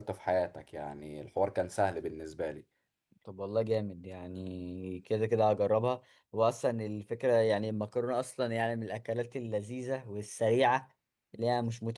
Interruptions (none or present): none